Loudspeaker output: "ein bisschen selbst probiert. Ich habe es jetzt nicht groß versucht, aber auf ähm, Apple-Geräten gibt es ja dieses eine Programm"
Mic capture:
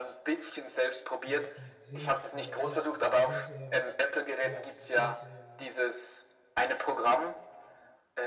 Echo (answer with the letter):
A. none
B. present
B